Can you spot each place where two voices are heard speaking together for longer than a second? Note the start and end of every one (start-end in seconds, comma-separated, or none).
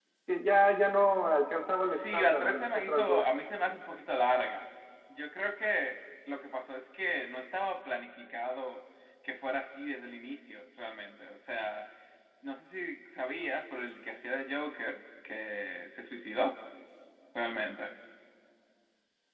1.8-3.2